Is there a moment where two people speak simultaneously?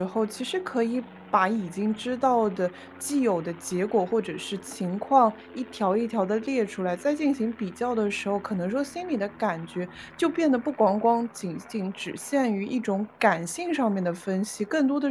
No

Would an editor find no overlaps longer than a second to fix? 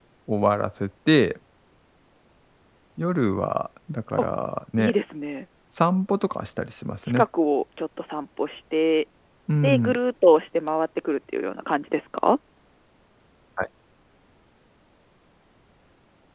Yes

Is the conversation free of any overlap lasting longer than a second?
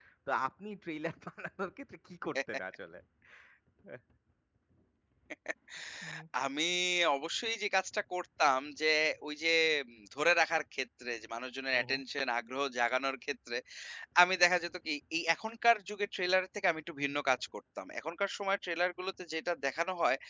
Yes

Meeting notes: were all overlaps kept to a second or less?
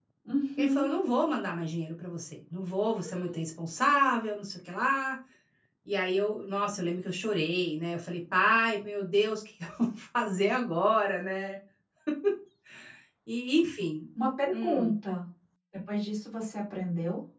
Yes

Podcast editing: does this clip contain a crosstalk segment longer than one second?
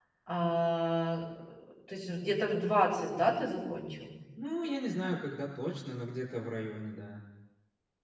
No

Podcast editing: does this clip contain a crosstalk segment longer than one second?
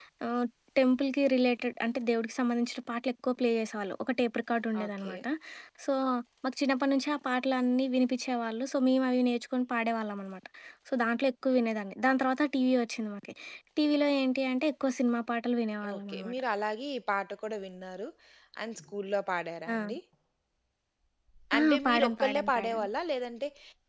Yes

